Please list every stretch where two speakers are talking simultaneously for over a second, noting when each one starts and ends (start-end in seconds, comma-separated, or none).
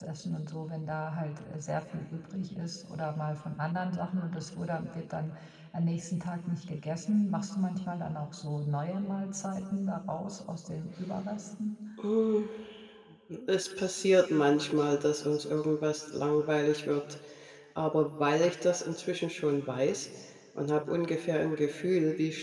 none